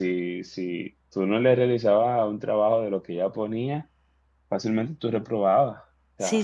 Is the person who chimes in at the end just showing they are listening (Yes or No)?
No